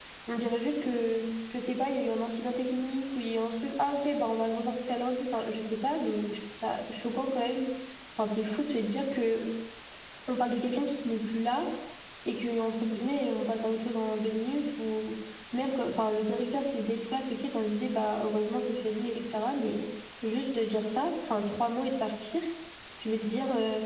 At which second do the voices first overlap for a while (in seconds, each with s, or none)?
none